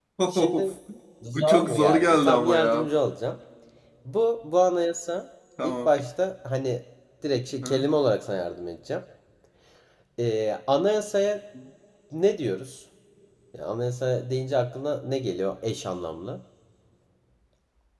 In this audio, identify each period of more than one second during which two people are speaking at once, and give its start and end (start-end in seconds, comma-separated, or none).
1.3-2.9